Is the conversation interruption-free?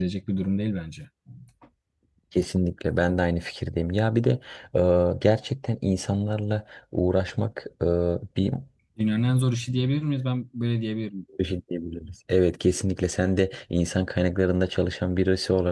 Yes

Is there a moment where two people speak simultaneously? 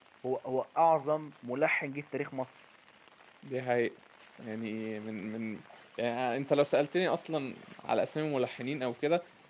No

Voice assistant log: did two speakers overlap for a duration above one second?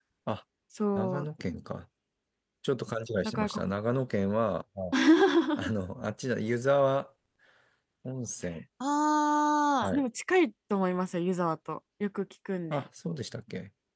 No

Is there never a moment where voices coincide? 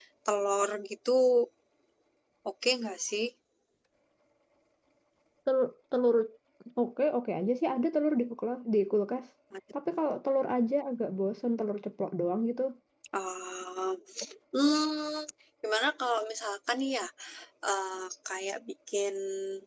Yes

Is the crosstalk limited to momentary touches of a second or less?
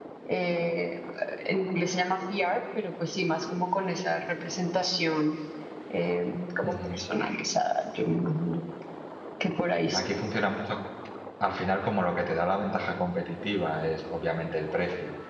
Yes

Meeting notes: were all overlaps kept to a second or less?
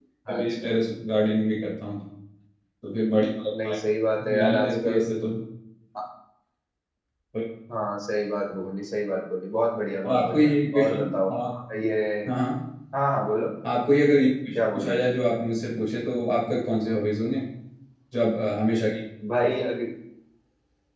No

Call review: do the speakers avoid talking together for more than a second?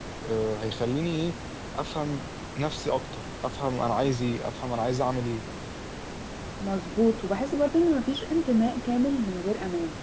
Yes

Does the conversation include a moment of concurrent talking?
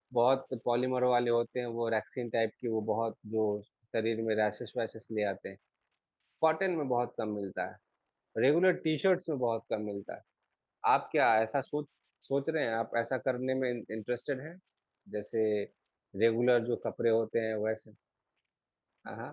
No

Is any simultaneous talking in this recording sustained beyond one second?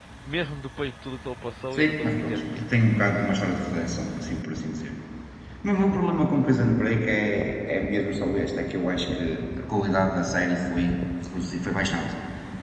Yes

